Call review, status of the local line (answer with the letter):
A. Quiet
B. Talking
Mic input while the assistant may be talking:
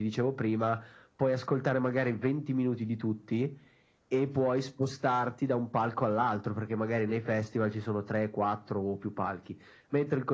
A